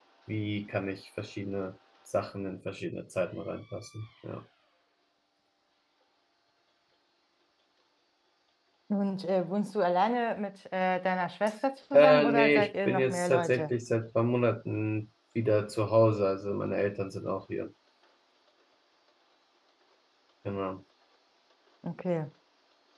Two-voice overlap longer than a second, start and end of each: 11.9-13.7

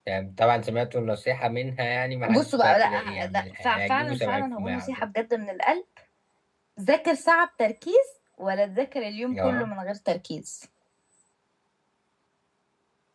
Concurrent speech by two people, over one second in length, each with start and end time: 2.2-4.9

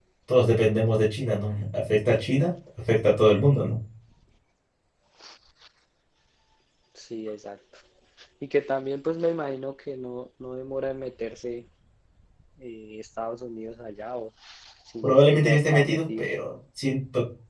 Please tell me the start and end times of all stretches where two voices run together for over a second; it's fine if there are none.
15.0-16.3

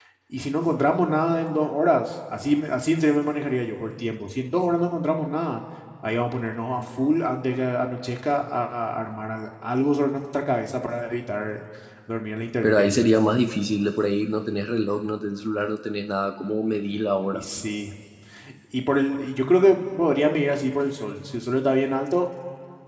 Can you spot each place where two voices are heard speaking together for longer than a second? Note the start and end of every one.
none

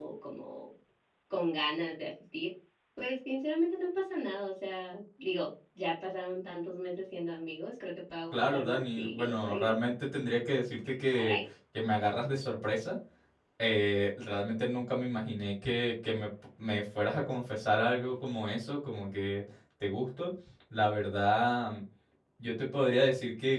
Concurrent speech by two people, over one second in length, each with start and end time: 8.3-9.7

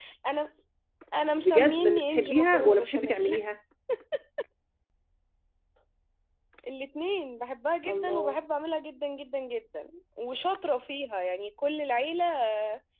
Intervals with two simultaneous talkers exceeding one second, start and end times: 1.4-3.4

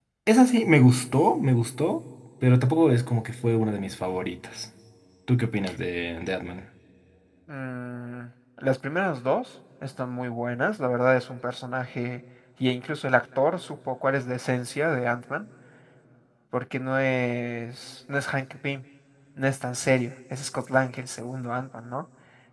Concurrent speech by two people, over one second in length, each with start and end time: none

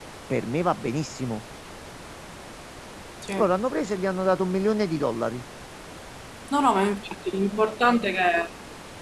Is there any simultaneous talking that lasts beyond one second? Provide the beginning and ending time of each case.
none

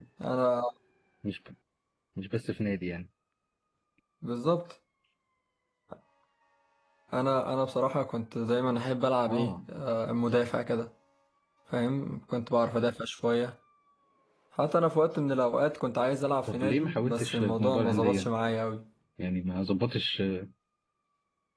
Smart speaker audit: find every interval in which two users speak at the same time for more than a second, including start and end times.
16.5-18.3

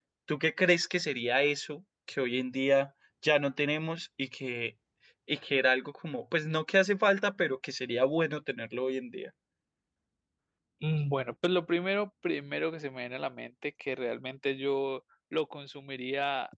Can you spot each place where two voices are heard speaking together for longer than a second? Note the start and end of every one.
none

